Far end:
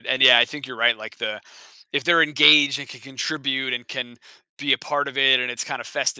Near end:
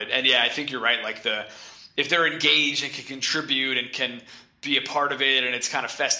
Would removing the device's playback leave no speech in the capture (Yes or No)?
Yes